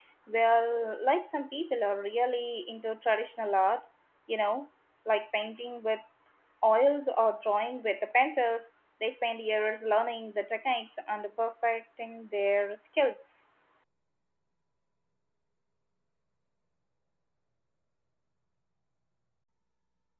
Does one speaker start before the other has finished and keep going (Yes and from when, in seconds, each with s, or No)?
No